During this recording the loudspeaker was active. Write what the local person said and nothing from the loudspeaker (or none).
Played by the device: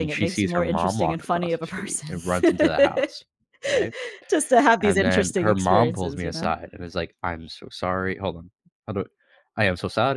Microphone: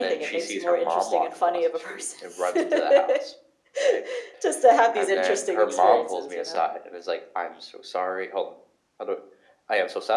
none